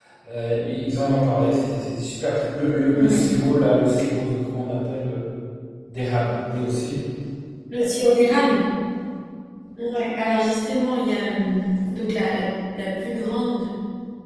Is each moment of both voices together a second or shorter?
Yes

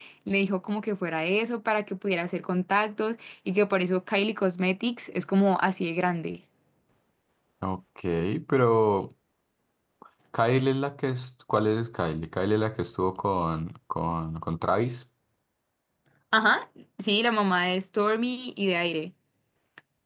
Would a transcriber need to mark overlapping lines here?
No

